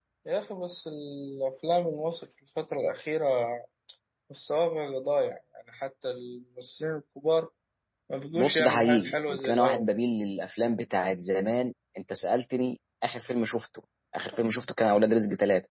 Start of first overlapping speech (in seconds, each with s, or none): 8.4 s